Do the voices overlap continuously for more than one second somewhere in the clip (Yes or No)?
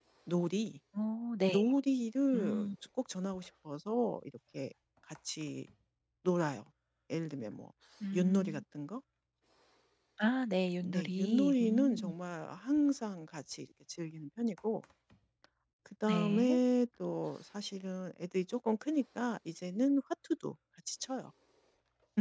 Yes